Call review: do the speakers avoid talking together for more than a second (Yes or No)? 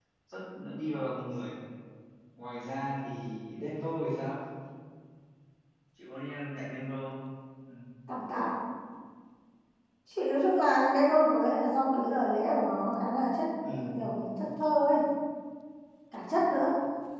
Yes